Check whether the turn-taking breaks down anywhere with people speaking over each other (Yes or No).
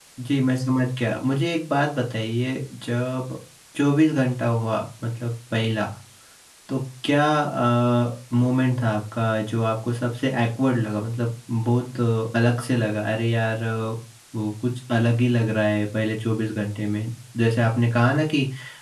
No